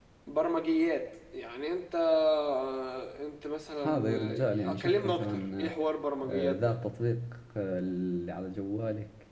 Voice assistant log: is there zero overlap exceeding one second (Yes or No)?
No